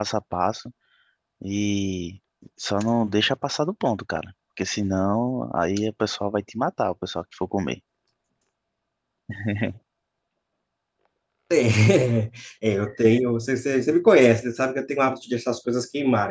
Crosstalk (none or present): none